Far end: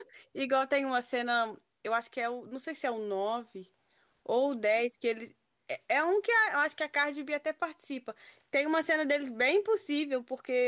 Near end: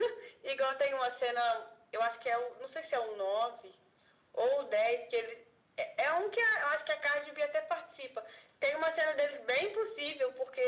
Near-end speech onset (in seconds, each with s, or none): none